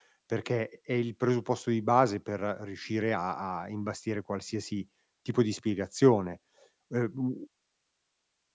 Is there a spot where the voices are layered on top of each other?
No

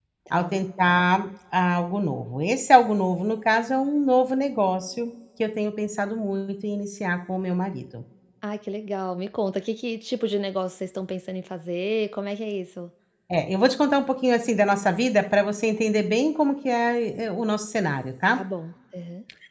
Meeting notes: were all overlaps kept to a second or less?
Yes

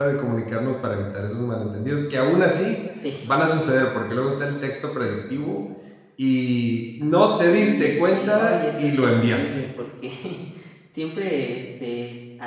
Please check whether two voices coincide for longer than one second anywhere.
Yes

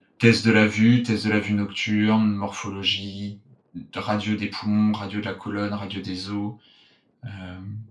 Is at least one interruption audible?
No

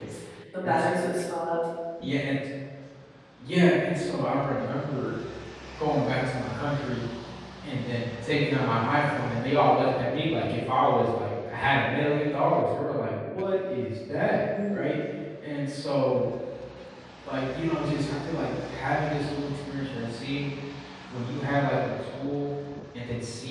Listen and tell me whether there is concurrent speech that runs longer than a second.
No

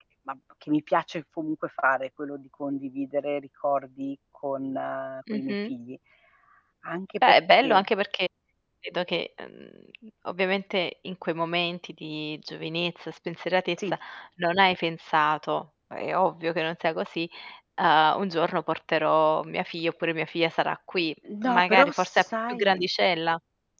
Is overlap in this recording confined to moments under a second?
No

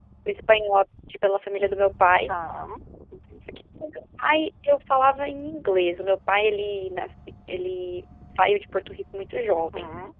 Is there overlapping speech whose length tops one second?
No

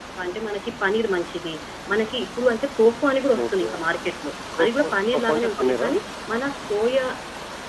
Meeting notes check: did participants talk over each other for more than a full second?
Yes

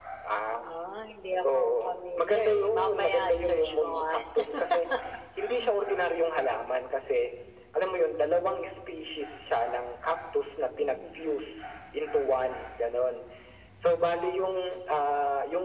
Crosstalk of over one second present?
Yes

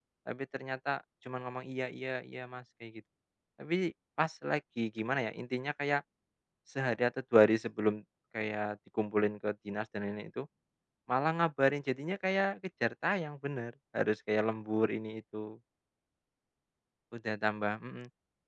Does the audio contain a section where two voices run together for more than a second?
No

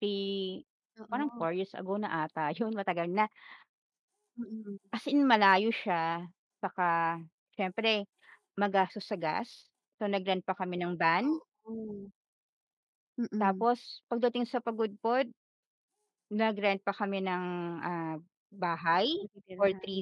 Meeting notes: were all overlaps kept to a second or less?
Yes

